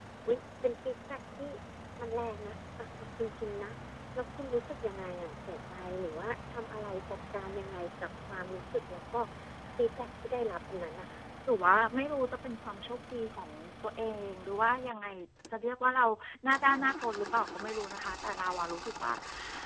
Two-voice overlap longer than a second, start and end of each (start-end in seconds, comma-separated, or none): none